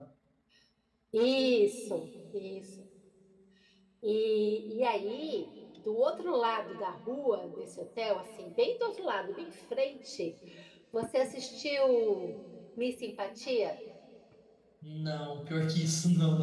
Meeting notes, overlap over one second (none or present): none